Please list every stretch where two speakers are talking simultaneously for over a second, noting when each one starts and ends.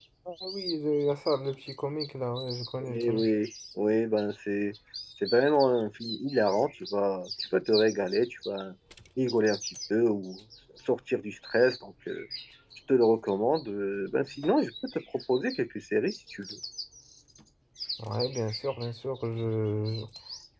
none

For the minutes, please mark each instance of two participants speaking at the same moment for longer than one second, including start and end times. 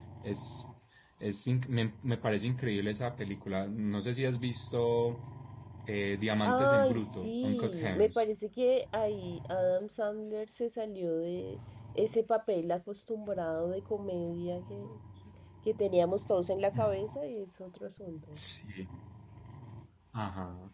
6.5-8.2

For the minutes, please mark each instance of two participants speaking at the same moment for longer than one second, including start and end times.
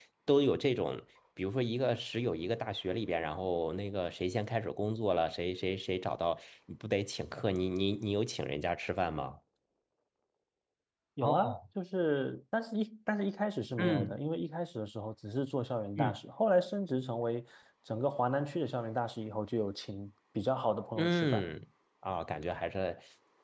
none

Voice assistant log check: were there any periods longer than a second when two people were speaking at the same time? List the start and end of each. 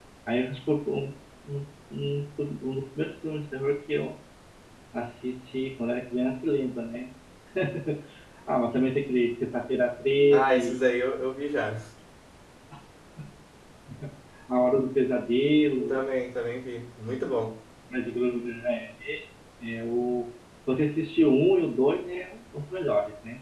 none

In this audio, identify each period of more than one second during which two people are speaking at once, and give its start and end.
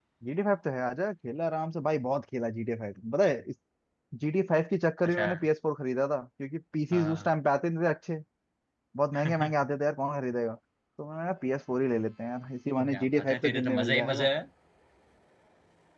12.9-14.3

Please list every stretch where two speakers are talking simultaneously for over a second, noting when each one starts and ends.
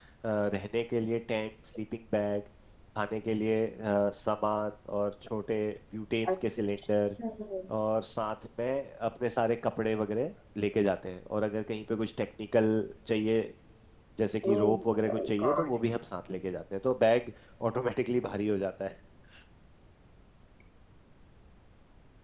14.4-15.8

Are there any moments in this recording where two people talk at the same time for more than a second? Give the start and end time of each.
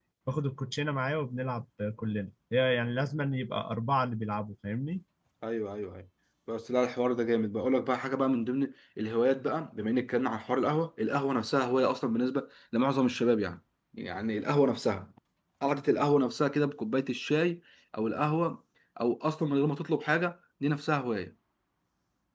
none

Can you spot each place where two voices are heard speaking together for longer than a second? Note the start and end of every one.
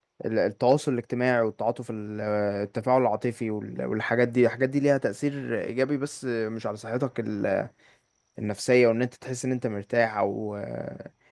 none

